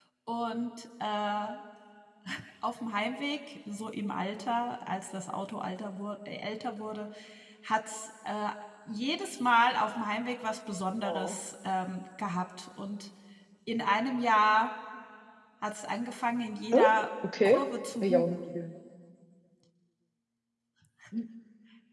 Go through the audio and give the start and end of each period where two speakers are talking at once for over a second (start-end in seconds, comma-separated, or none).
none